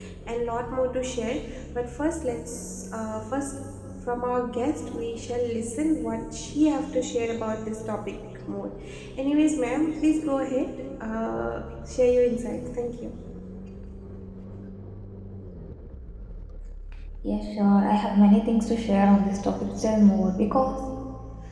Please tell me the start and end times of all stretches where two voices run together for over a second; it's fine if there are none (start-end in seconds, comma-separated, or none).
none